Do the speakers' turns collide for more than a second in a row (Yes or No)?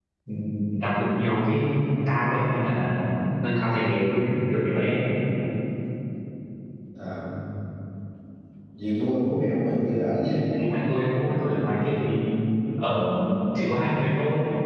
No